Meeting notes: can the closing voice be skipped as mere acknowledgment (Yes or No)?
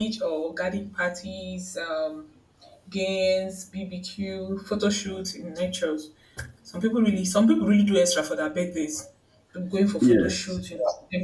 Yes